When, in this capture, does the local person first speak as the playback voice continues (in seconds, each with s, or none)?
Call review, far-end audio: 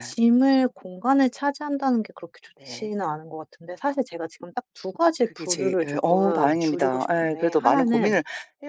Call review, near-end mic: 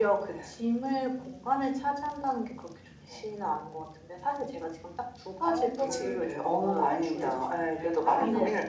5.4 s